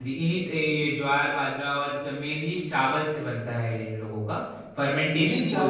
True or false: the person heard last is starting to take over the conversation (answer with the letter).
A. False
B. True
B